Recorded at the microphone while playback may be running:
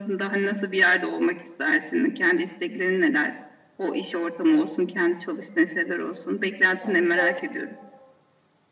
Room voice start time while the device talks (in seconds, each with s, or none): 6.8 s